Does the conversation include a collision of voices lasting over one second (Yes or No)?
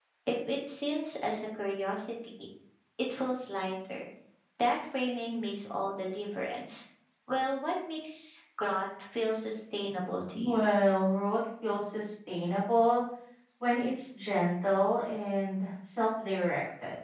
No